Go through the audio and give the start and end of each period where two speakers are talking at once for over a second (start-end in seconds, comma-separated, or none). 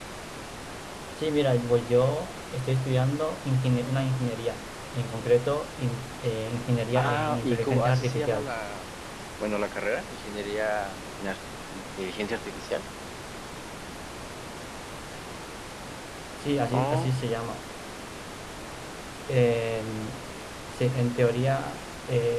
7.0-8.5